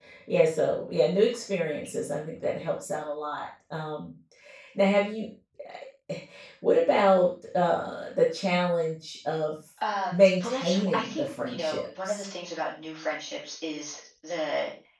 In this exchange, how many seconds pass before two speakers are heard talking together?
10 s

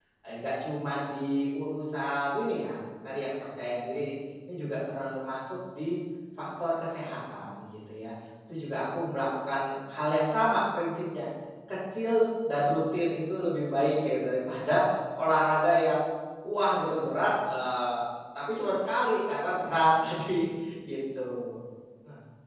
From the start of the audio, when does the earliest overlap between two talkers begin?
none

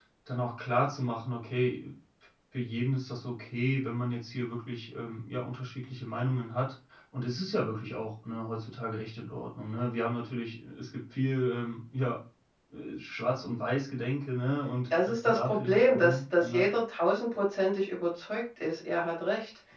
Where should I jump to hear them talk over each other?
15 s

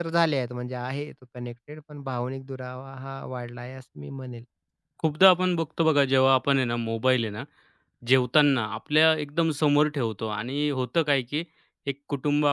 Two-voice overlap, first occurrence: none

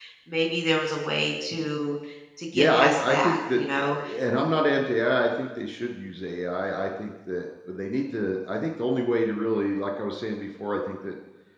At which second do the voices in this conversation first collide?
3 s

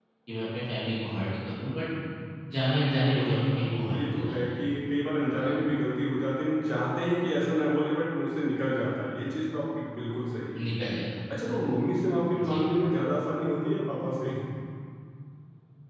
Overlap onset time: 3 s

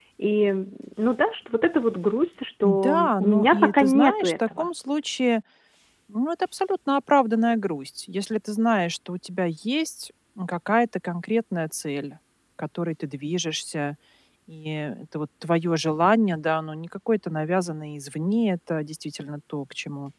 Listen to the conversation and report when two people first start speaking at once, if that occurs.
3 s

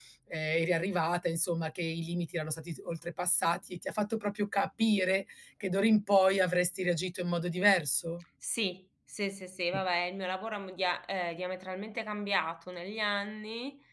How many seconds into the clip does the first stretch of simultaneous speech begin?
none

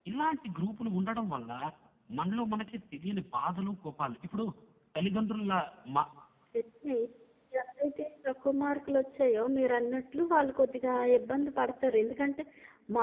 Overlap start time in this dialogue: none

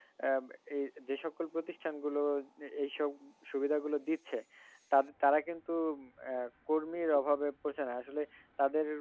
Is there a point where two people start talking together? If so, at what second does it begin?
none

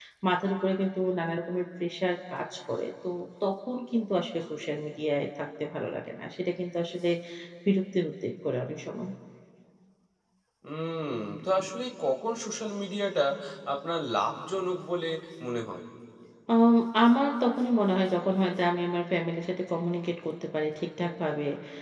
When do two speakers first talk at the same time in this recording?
none

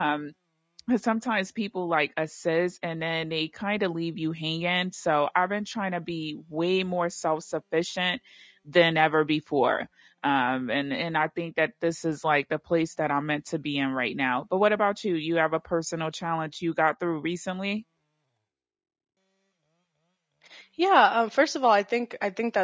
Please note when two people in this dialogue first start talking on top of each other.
none

